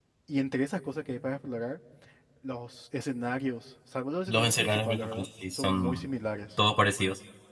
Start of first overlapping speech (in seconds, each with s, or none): 4.3 s